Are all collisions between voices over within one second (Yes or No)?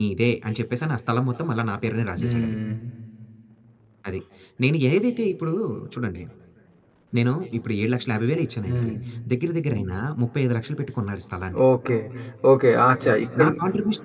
Yes